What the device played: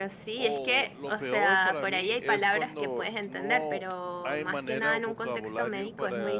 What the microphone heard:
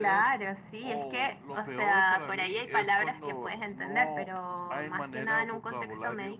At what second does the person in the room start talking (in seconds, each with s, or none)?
none